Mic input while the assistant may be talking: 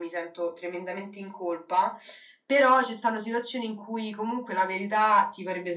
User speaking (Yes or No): No